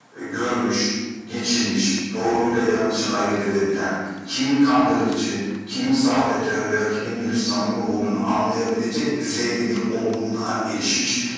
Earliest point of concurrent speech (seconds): none

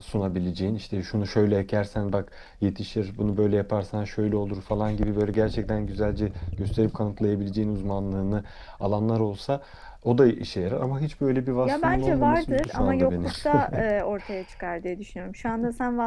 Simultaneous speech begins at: 12 s

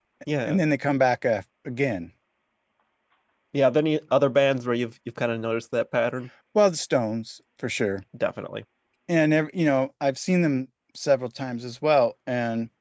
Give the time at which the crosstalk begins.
none

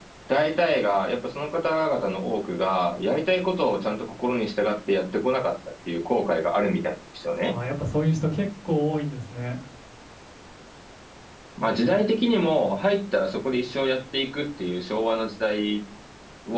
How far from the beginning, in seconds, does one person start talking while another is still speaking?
none

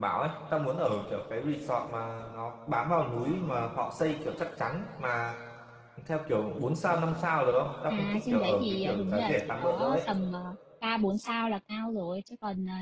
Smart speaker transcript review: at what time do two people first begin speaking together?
8 s

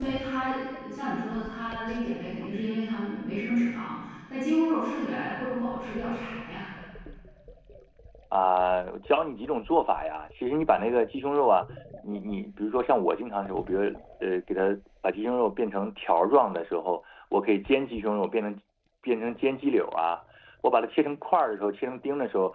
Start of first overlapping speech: none

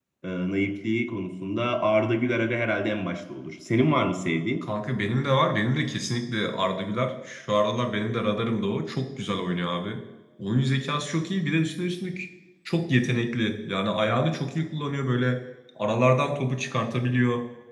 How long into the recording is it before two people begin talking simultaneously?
none

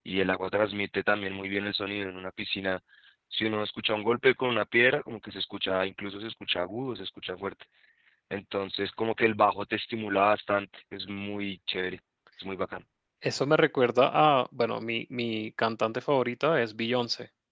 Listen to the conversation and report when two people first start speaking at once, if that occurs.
none

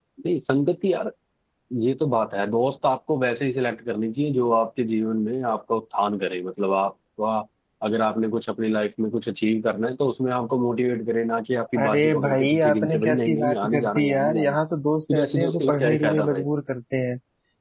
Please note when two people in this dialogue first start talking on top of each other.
12 s

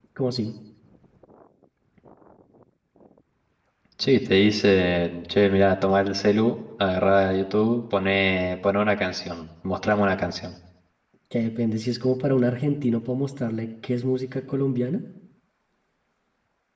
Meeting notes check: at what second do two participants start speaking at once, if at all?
none

